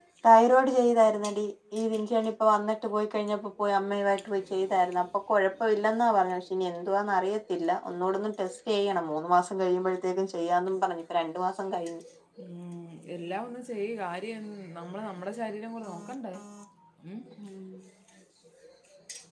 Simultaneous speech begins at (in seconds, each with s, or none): none